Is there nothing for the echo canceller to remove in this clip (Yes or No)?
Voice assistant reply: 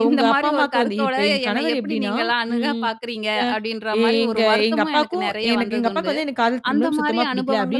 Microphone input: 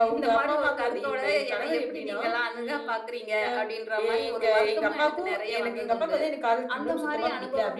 No